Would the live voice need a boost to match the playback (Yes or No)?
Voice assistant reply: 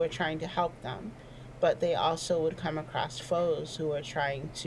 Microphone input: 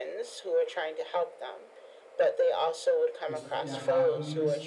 Yes